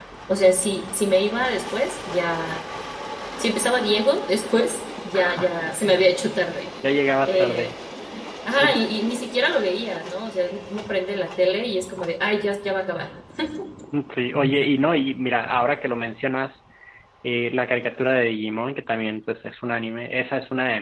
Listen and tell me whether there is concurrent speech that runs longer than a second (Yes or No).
No